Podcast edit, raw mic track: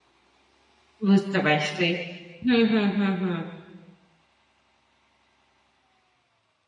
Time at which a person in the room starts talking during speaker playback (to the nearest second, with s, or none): 1 s